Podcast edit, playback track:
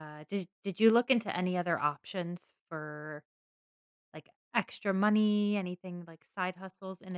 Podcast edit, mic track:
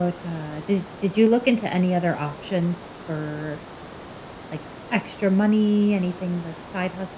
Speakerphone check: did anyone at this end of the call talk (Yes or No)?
No